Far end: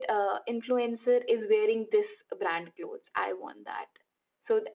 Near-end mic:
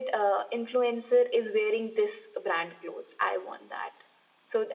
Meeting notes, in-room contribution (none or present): none